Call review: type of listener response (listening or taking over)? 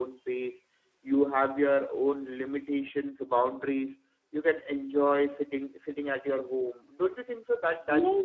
taking over